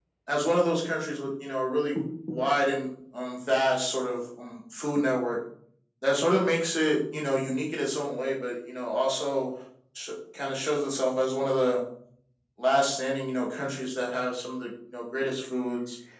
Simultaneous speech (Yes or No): No